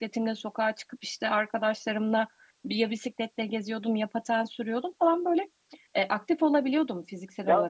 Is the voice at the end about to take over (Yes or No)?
Yes